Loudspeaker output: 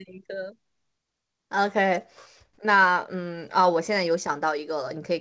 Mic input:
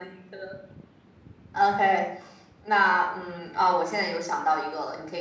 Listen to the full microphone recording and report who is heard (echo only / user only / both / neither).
echo only